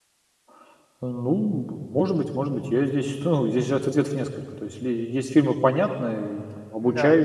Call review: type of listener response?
listening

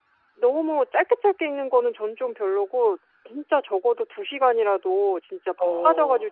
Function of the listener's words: listening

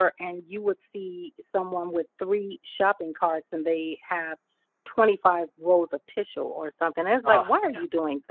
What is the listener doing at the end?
listening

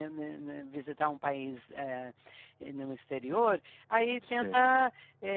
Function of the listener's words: listening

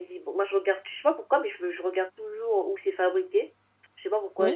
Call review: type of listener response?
listening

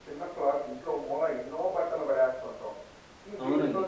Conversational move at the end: listening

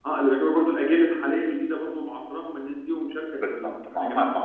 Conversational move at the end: taking over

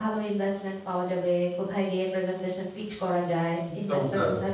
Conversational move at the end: listening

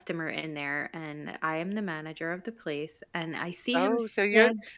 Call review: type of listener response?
taking over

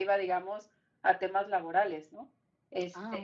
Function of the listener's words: listening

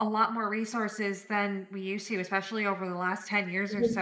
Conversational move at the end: listening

